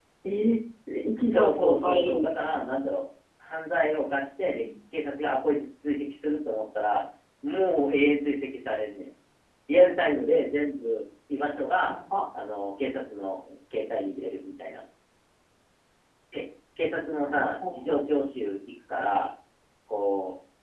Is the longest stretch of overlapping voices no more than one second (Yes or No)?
No